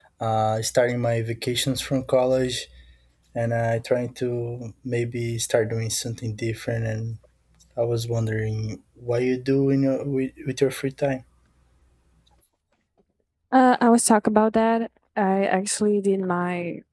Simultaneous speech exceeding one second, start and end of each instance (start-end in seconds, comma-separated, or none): none